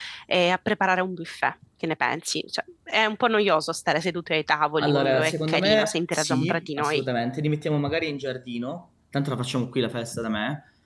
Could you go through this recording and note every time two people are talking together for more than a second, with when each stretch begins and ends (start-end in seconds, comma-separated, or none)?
4.8-7.0